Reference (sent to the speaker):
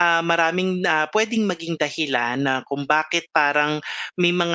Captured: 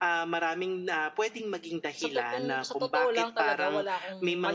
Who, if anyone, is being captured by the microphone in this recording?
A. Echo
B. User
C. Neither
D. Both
D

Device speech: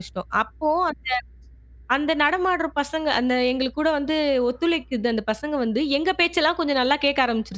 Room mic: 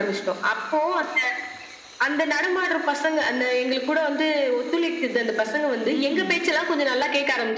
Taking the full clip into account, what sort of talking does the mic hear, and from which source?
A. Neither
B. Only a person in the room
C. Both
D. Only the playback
C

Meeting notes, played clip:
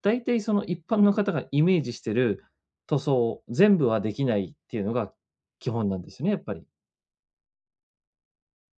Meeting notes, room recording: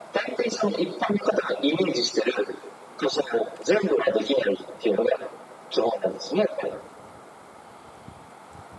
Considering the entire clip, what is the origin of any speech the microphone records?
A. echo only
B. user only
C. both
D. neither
A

